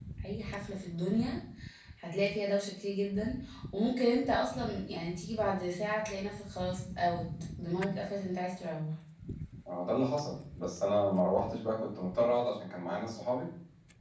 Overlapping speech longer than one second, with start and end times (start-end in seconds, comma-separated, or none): none